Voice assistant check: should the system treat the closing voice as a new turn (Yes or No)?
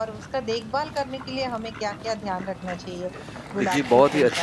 Yes